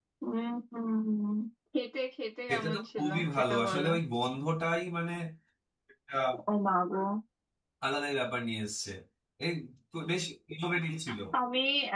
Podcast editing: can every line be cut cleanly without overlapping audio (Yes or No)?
No